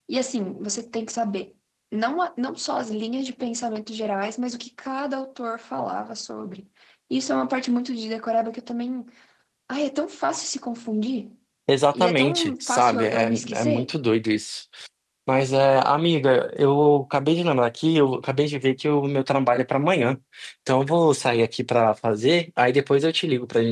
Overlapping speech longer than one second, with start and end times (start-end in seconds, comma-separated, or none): 11.9-13.9